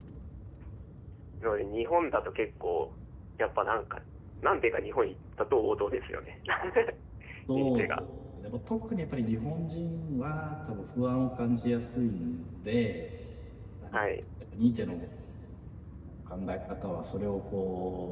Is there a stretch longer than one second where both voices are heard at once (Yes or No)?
No